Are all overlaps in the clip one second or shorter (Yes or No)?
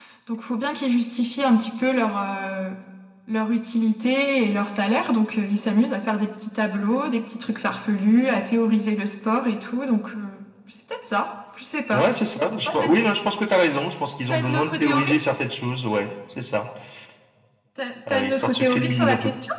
No